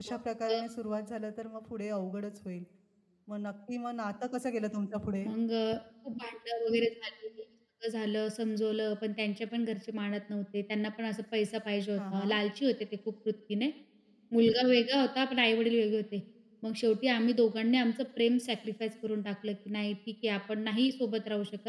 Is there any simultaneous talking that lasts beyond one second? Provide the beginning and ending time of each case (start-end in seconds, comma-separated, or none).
none